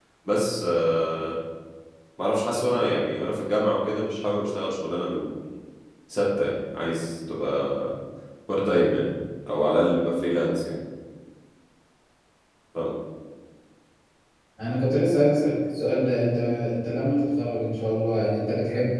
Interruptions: none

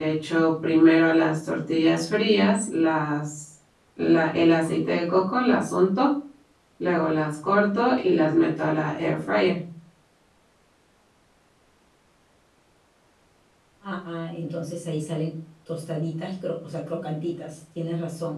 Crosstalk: none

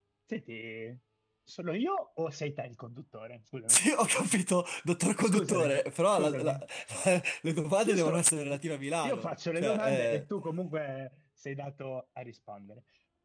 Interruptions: present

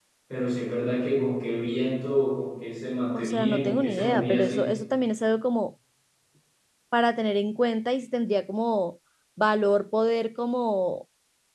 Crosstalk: present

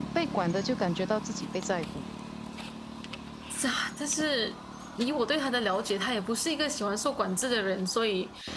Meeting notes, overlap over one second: none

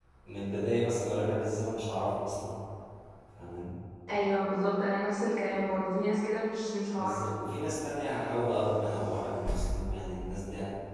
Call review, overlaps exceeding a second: none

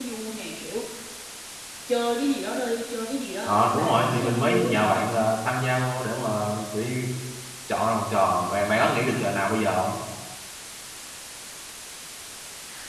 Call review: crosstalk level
present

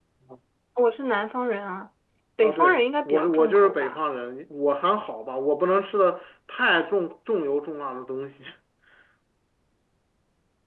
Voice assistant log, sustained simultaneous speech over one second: present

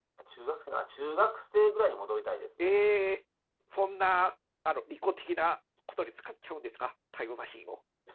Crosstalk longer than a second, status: none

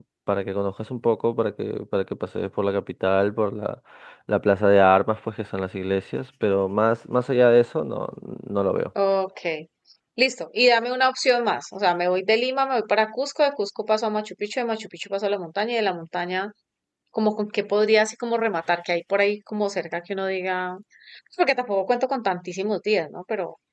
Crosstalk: none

